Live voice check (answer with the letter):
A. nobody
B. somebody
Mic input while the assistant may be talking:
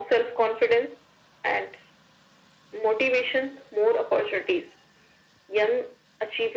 A